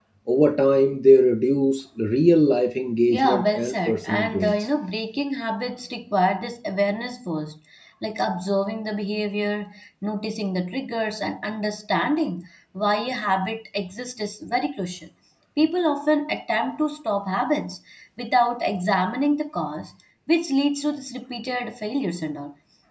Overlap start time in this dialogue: 3.1 s

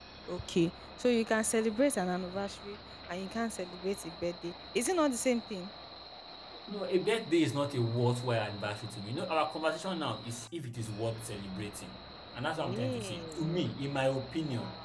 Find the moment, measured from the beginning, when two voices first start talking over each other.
12.6 s

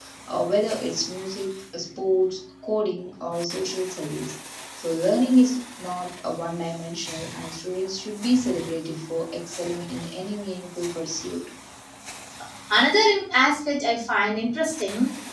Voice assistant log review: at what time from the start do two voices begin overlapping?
none

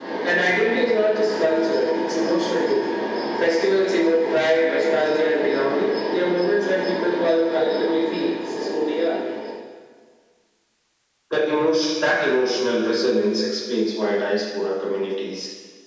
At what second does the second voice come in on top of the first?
none

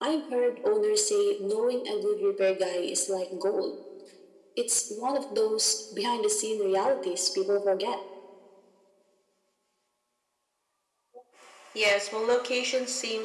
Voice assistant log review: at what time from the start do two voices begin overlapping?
none

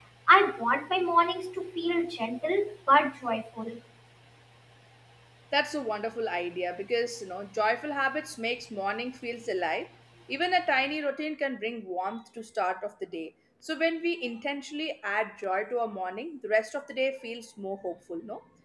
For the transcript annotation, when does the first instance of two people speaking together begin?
none

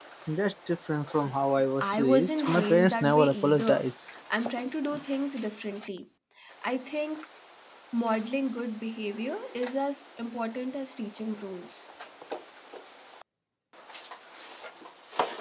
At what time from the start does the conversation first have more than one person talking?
1.8 s

